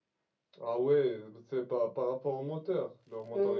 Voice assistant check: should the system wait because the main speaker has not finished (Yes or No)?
No